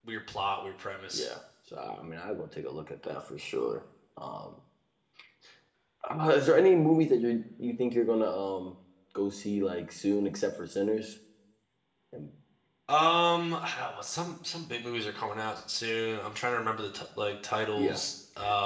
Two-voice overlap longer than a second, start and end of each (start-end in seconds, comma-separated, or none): none